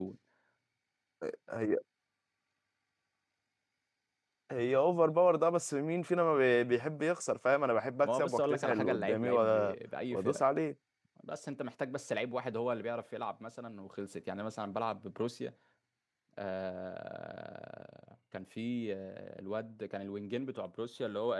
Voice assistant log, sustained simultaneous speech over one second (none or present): present